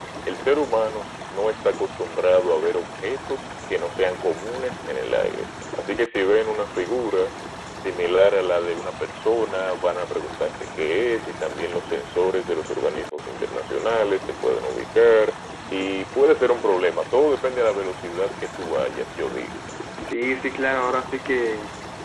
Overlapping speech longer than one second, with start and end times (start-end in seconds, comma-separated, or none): none